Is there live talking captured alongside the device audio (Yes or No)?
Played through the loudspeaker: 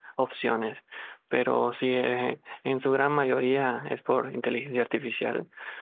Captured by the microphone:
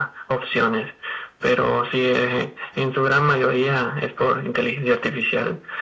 No